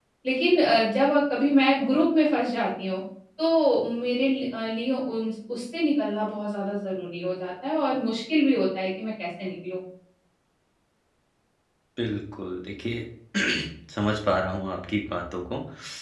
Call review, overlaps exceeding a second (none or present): none